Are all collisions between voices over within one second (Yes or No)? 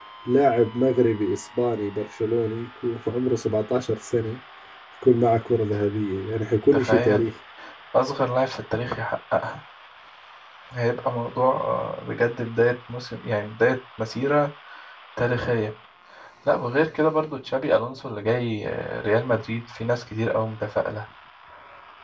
Yes